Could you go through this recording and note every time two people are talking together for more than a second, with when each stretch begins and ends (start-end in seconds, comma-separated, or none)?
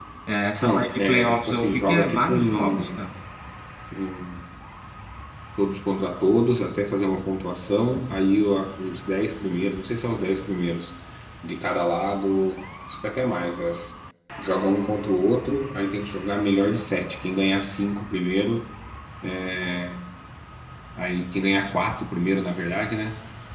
0.6-3.1